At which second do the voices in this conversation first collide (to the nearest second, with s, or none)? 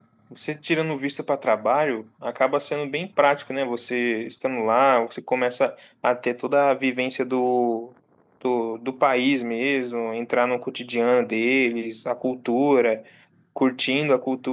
none